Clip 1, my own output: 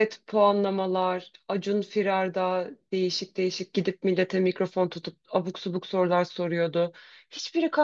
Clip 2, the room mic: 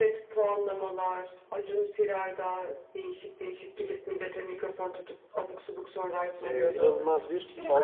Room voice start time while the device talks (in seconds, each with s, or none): 6.4 s